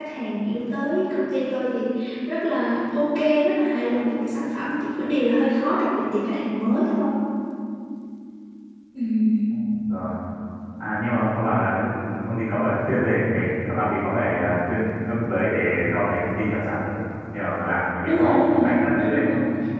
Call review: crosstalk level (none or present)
present